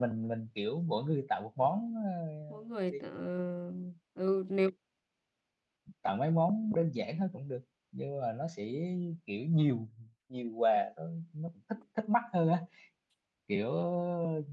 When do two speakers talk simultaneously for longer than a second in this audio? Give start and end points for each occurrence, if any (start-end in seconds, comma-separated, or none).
none